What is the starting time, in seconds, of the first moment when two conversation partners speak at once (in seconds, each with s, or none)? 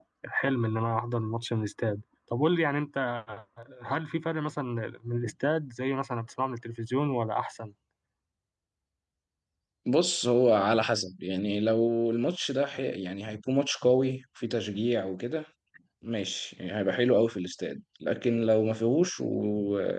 none